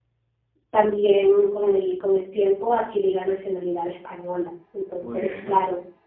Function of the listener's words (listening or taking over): listening